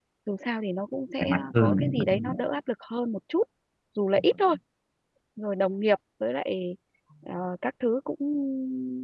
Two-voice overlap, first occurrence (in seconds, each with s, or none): 1.2 s